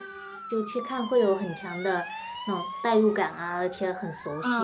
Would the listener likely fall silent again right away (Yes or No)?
No